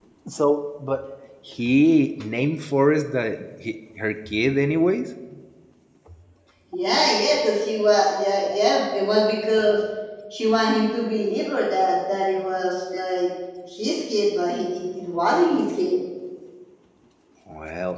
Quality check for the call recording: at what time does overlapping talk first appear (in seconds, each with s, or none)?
none